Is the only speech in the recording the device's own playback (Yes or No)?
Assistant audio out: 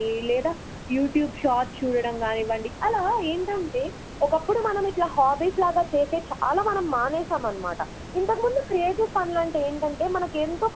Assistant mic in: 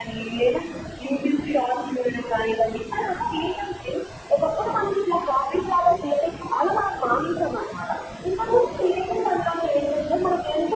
Yes